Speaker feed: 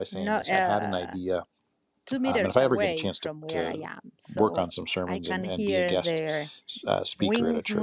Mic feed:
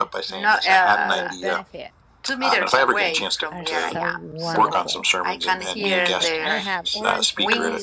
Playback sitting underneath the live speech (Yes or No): No